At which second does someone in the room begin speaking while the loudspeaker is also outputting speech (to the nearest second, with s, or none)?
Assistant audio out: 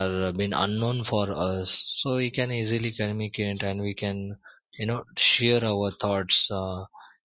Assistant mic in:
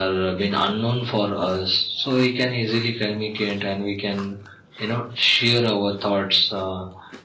none